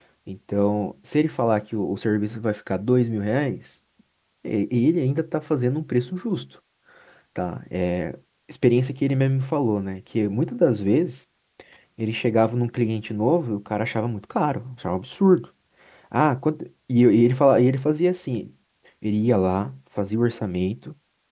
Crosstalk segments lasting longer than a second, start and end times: none

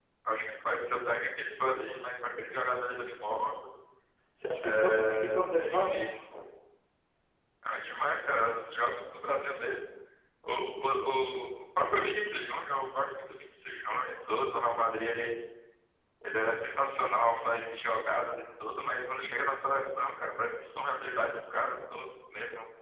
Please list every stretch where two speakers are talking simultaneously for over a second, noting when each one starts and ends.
4.6-5.9

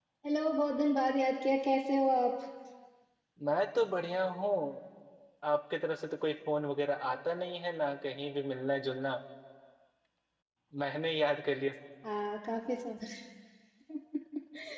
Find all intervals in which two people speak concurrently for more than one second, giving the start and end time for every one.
none

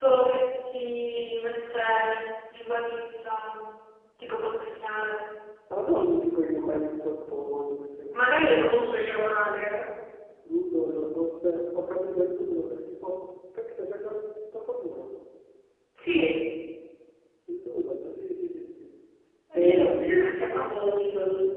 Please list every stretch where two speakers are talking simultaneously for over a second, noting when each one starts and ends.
none

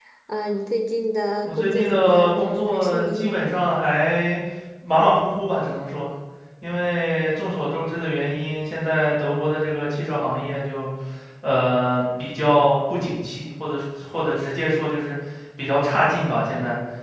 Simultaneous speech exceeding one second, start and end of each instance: 1.4-3.5

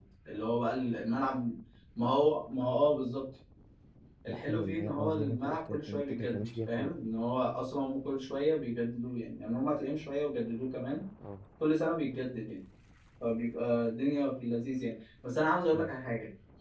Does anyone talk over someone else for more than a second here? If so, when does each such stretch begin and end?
4.3-7.0

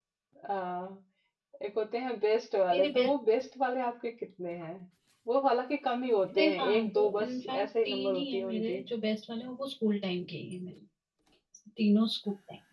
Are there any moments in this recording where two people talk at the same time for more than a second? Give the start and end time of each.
6.3-8.8

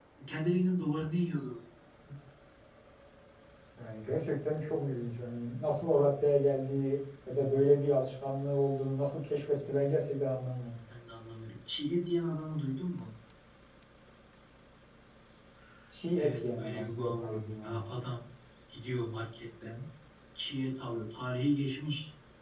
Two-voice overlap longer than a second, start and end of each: 16.2-17.8

